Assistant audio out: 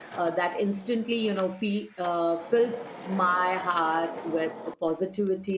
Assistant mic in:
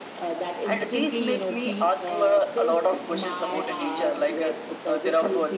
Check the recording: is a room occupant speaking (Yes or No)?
Yes